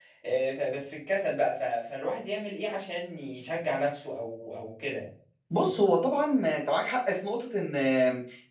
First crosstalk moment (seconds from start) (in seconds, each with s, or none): none